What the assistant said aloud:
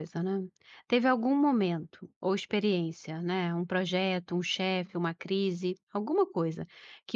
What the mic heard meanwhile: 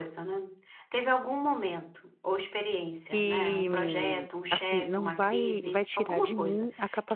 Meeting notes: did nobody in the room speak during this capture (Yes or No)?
No